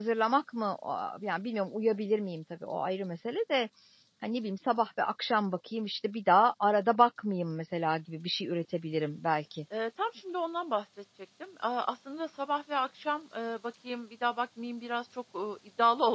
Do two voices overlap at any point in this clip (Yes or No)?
No